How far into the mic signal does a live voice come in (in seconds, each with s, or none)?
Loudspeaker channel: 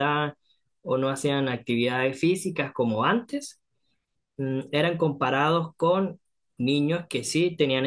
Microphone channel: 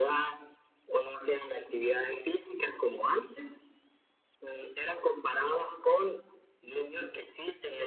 none